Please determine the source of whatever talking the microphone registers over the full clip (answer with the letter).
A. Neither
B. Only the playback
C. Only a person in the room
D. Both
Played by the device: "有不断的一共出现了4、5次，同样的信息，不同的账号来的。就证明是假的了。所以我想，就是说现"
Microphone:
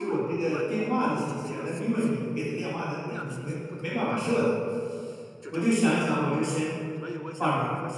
D